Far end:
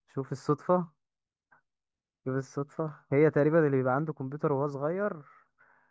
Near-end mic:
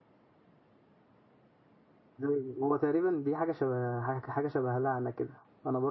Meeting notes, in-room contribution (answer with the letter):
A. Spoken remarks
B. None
A